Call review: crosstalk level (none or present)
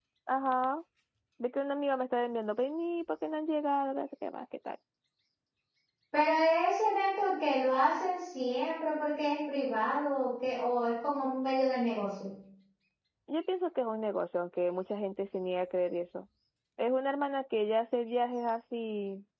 none